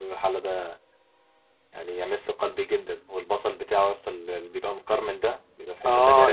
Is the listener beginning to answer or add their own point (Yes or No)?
Yes